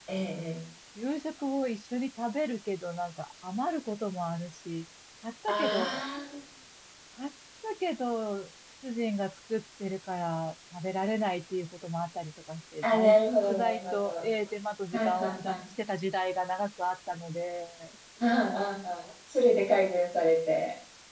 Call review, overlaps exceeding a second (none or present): present